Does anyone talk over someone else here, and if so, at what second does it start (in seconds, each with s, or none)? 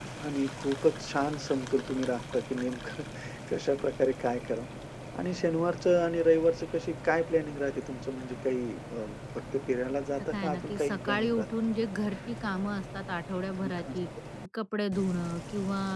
10.2 s